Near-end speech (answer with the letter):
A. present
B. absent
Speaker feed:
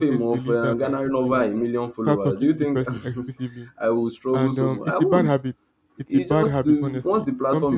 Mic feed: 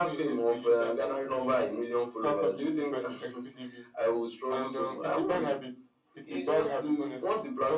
B